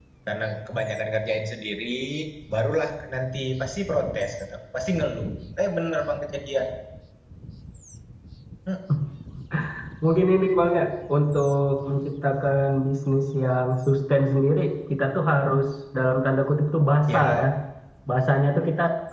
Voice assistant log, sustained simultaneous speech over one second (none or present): none